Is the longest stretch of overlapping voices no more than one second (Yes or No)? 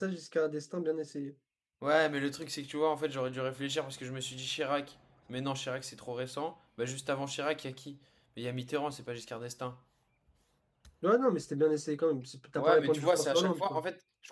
No